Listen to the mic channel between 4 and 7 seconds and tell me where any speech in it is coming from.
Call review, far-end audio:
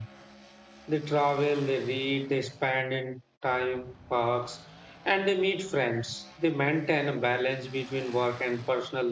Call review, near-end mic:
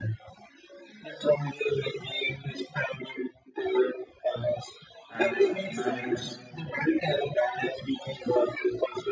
both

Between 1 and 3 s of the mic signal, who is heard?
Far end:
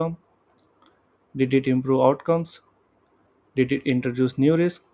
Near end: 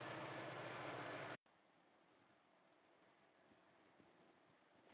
neither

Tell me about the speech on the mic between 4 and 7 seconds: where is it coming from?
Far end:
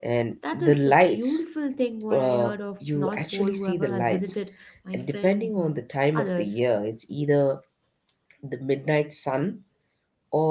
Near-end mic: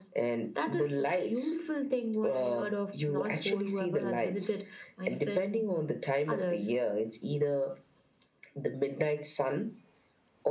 echo only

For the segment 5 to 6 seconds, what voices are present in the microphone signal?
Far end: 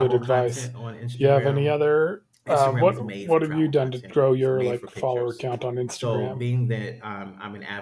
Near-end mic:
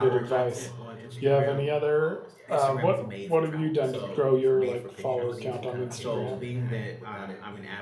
both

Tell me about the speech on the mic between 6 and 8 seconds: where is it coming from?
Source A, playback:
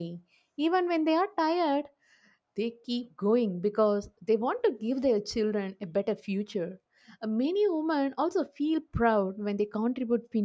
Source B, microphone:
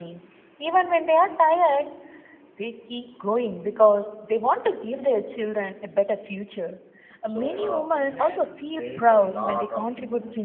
both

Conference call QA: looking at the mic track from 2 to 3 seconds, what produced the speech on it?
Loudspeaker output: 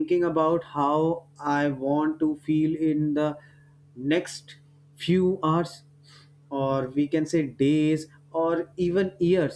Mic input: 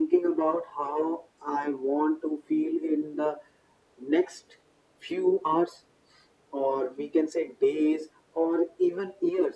echo only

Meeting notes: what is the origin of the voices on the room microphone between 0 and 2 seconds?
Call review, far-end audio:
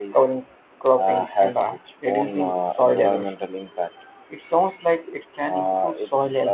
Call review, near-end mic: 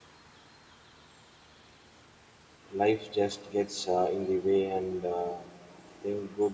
neither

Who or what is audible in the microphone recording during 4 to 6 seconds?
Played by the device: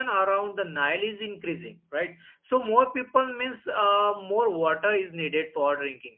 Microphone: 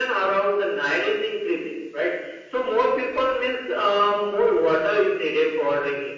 echo only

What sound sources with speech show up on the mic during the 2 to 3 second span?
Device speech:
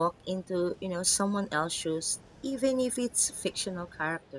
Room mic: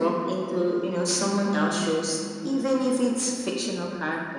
echo only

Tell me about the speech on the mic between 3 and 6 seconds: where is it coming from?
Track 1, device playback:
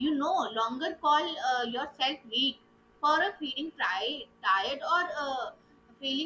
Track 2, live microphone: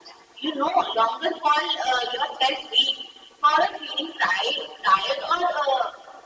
echo only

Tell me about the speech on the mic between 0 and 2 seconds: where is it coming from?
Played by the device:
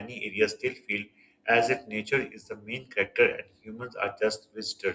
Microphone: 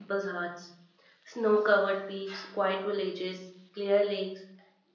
user only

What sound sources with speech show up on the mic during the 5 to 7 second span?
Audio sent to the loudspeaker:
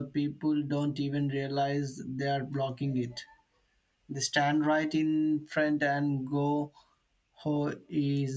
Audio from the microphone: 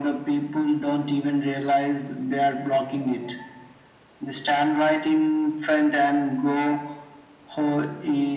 echo only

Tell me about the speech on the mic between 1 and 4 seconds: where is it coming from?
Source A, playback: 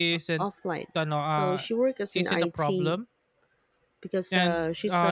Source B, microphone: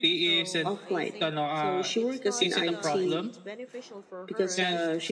both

